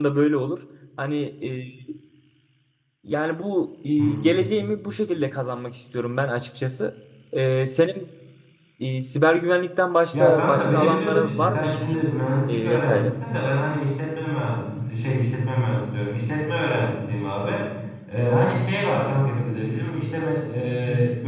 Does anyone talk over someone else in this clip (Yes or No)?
Yes